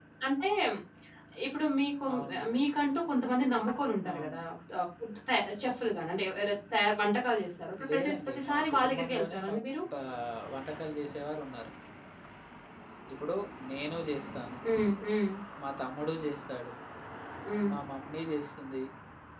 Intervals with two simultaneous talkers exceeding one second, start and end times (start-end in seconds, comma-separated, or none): 7.9-9.6